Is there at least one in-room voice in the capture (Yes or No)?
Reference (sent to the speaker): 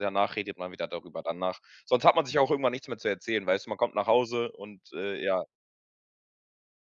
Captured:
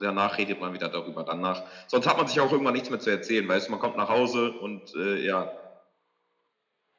No